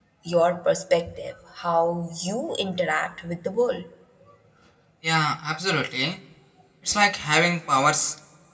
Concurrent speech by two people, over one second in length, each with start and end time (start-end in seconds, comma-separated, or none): none